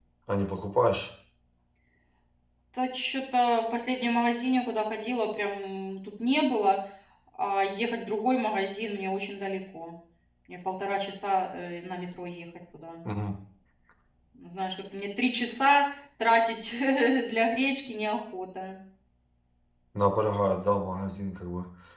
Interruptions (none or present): none